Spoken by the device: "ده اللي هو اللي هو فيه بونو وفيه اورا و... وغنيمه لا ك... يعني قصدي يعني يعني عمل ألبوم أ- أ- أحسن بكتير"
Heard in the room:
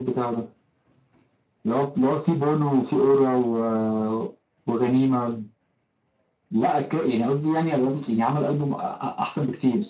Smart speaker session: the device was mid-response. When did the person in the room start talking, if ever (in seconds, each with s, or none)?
none